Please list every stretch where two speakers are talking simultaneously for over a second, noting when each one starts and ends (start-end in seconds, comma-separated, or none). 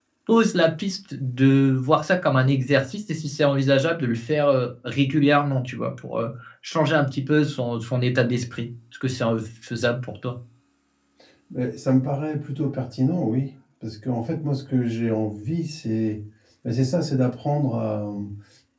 none